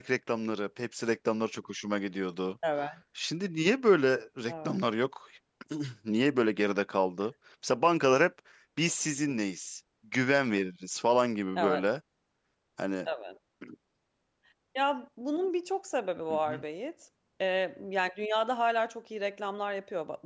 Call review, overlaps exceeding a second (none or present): none